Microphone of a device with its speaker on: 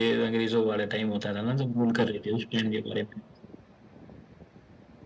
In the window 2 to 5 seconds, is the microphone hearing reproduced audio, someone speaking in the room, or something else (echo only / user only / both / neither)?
echo only